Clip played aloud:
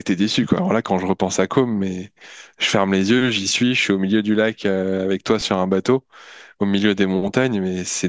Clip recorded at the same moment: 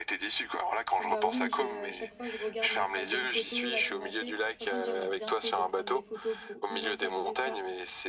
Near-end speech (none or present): present